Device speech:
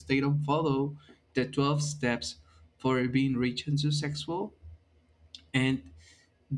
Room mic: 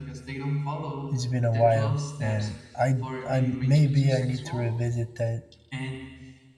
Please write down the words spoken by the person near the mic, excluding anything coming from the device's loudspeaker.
it's been a while, and I I maybe I need to revisit that

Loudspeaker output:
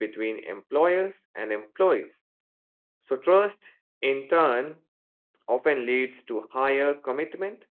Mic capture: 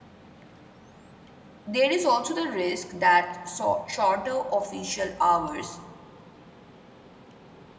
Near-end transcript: there is also the risk that so- shorter official hours

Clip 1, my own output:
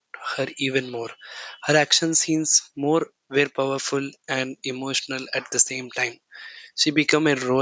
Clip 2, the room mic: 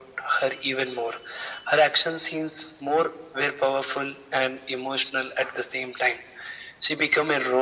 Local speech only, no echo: none

